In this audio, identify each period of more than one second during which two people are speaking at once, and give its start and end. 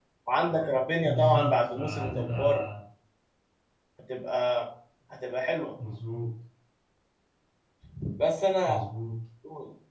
1.0-2.6

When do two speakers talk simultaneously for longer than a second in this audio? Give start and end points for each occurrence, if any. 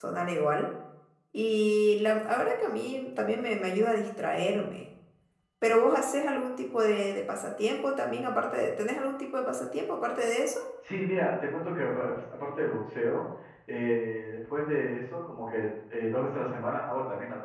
none

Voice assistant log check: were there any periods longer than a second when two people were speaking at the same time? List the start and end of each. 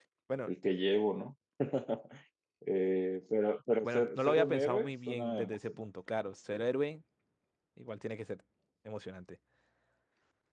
3.8-5.8

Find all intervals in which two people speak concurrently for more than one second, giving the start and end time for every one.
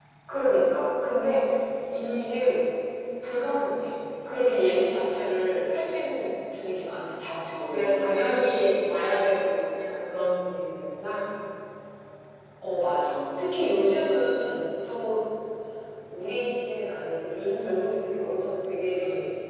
none

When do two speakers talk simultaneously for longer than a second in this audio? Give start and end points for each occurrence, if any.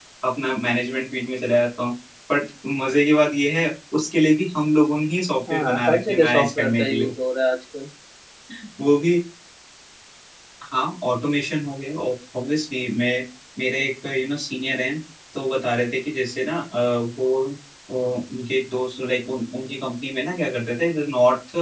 5.5-7.1

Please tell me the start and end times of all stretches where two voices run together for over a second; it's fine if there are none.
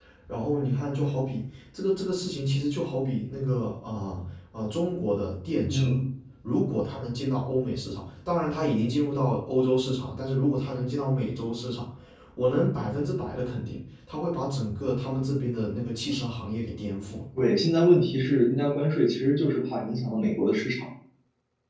none

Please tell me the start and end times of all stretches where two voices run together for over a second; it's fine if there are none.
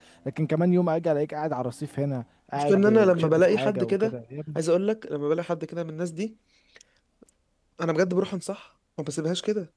2.6-4.1

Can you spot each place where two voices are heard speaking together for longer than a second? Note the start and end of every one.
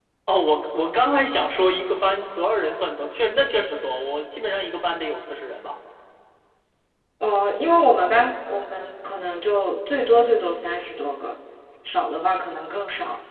none

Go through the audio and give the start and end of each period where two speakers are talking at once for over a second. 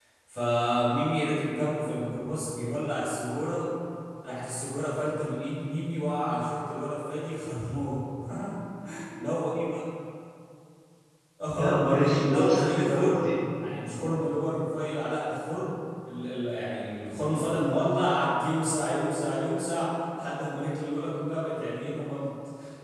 11.6-13.3

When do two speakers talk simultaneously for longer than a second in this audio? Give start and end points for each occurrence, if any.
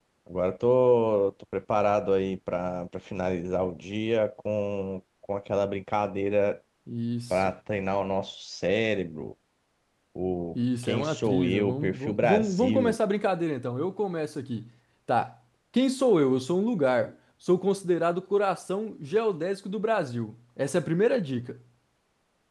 10.8-13.0

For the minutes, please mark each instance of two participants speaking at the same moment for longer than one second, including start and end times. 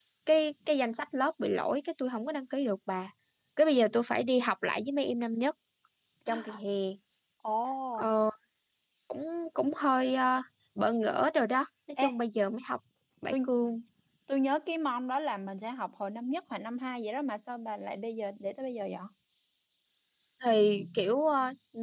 none

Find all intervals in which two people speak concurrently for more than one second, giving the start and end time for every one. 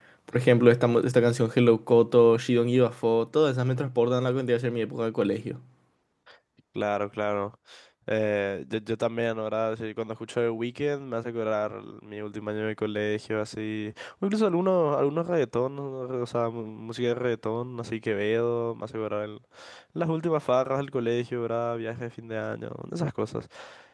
none

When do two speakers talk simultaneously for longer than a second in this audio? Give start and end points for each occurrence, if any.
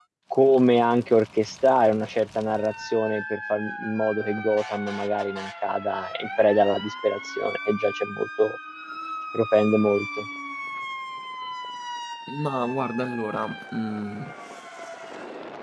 none

